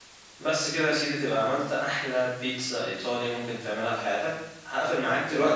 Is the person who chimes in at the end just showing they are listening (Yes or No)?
No